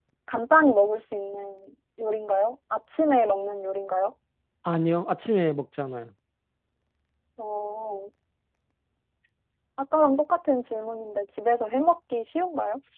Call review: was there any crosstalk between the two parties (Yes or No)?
No